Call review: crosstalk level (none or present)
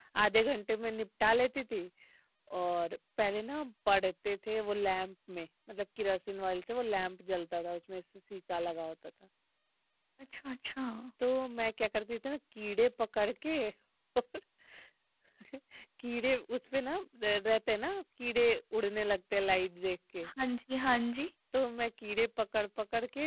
none